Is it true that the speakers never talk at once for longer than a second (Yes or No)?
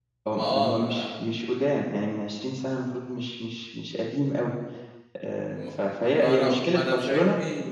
No